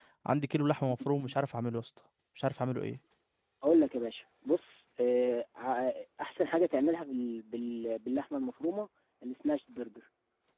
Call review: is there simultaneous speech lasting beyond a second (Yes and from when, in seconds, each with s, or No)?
No